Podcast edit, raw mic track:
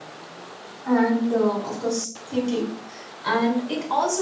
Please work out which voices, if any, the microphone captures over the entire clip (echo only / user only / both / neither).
user only